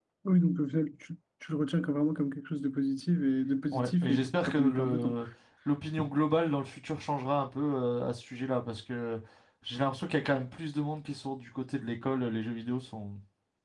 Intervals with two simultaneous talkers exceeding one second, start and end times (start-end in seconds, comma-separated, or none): 3.7-5.1